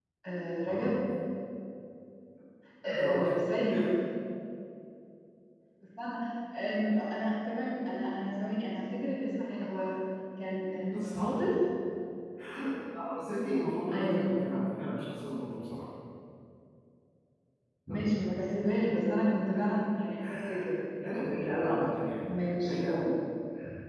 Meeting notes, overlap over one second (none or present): none